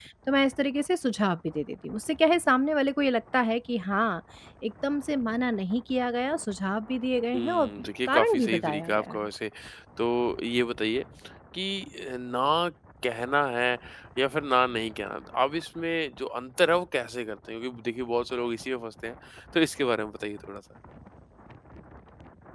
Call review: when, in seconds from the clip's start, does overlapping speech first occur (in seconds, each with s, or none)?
7.3 s